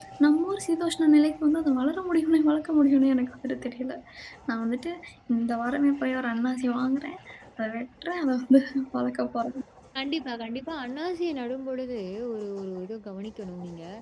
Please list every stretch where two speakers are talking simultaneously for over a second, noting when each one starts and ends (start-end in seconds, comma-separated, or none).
none